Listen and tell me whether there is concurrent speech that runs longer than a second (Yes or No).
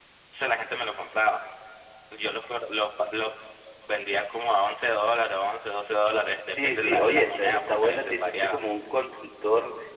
Yes